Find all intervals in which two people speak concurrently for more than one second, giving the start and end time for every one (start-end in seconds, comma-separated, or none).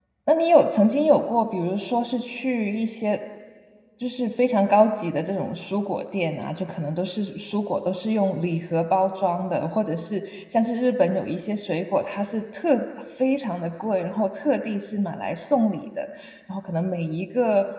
none